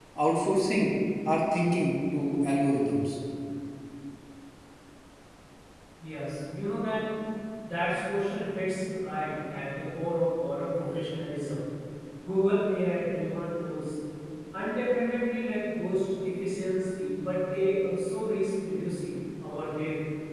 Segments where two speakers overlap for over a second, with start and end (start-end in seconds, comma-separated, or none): none